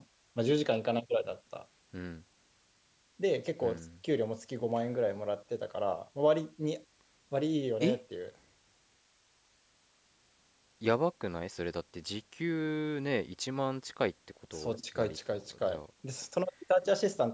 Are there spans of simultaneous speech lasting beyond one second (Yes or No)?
Yes